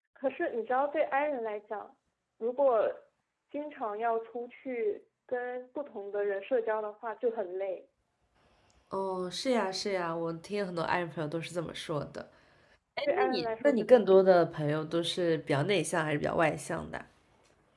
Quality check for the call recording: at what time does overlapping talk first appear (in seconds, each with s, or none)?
13.1 s